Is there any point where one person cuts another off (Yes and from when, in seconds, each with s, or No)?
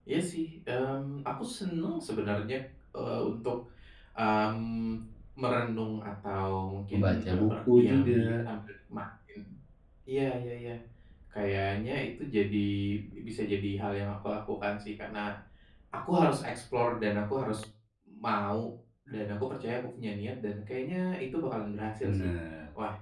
Yes, from 6.9 s